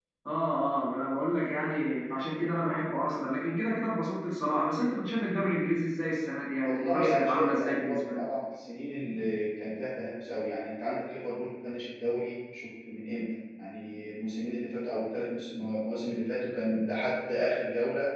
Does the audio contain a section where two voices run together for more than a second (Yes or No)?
Yes